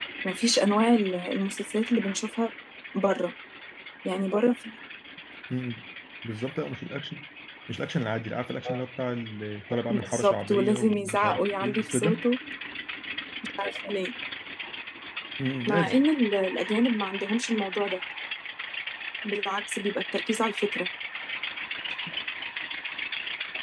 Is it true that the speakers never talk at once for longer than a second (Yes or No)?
No